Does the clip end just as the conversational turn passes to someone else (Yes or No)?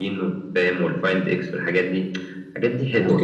Yes